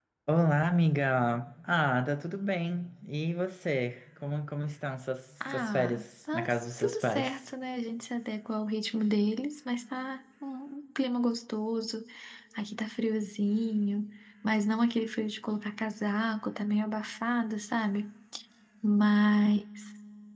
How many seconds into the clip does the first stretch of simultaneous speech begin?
5.4 s

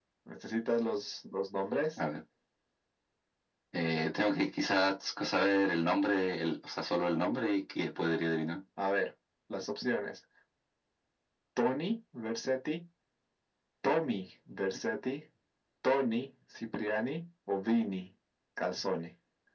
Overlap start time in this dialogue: none

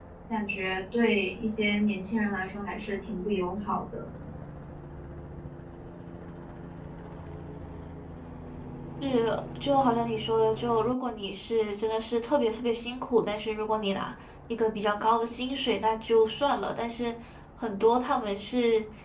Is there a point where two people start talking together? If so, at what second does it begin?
none

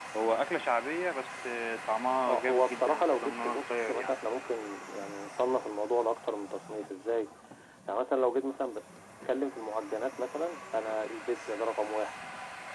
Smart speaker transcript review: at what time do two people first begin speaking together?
2.2 s

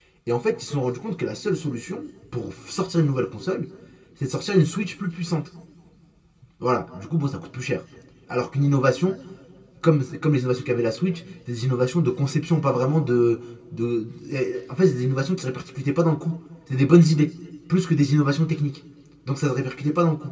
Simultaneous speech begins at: none

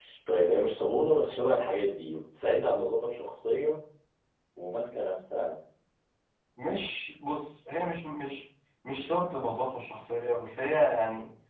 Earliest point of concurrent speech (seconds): none

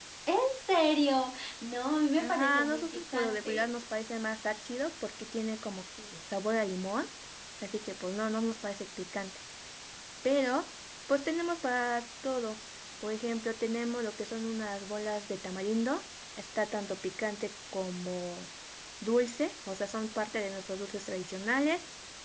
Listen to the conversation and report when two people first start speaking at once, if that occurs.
2.2 s

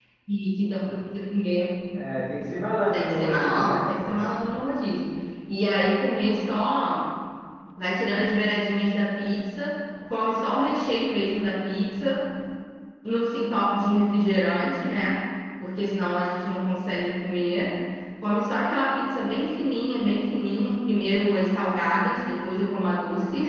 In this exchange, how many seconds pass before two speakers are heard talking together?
2.9 s

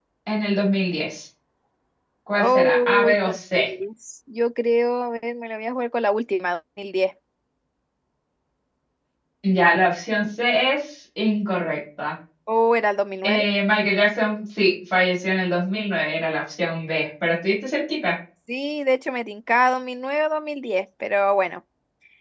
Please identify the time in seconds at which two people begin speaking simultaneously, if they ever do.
2.4 s

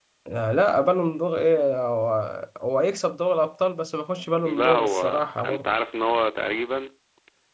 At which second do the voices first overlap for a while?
4.2 s

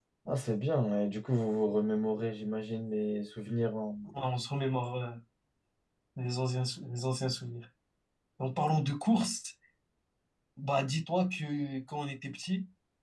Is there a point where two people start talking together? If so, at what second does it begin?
none

